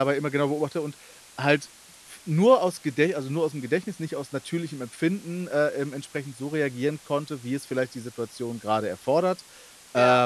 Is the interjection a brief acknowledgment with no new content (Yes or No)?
Yes